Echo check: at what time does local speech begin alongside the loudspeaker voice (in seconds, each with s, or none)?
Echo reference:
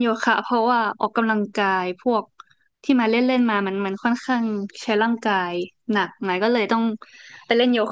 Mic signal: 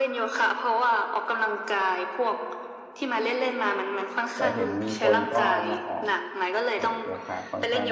4.3 s